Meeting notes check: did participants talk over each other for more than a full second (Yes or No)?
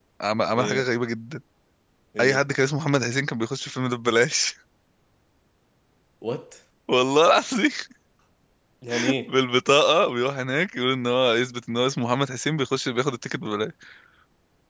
No